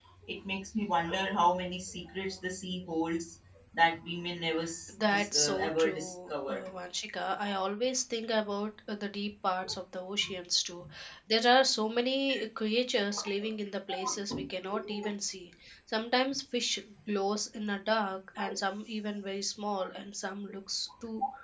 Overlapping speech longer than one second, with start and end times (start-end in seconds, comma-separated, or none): 5.0-6.6